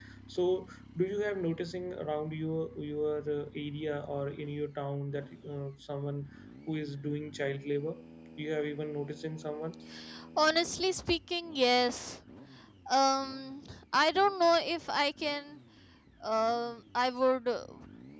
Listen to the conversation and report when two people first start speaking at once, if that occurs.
none

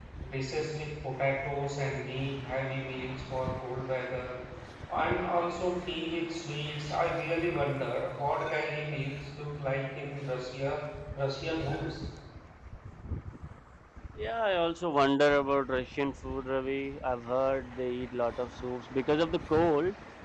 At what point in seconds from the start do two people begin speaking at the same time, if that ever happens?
none

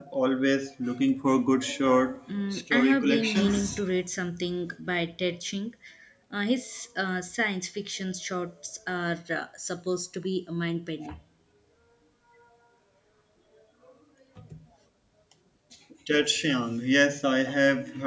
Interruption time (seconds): 3 s

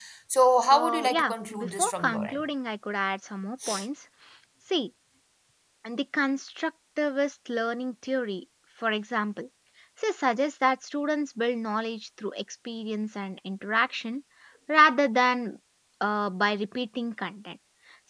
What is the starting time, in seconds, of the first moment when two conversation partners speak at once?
1 s

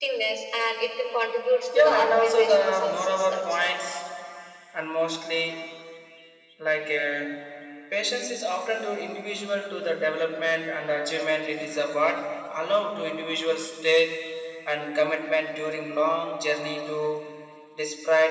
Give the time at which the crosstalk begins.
2 s

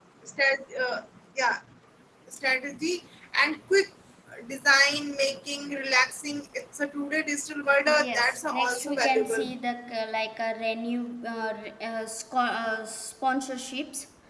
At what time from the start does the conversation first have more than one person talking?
8 s

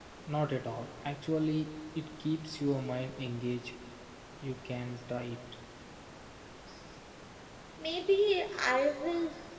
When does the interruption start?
none

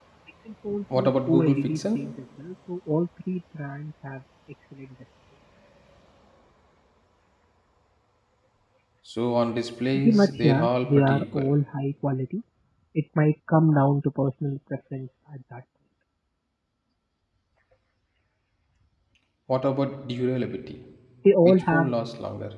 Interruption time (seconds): 1 s

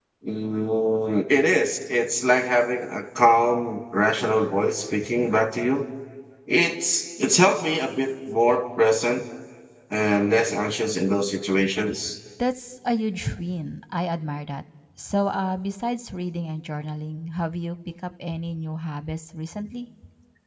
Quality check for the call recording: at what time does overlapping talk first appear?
none

